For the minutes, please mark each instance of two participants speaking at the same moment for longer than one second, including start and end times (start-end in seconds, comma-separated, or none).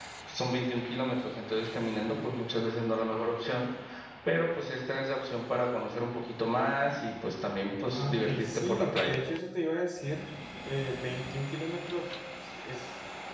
8.0-9.2